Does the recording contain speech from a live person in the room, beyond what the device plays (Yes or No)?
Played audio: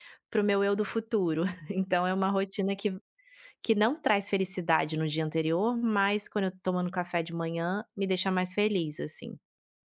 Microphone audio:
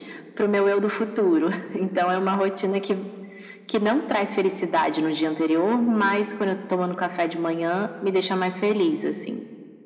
No